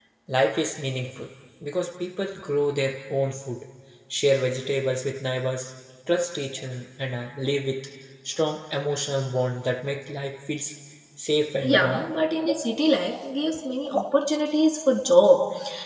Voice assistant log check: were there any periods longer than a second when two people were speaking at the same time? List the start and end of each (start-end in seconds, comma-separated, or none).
none